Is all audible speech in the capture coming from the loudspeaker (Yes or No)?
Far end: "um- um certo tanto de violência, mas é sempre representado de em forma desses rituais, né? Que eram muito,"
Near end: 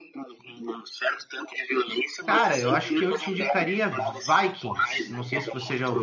No